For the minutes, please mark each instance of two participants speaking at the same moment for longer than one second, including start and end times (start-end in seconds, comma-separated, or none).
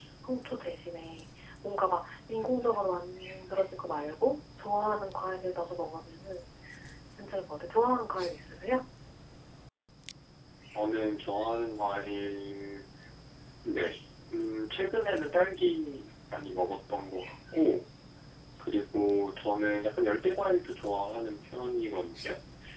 none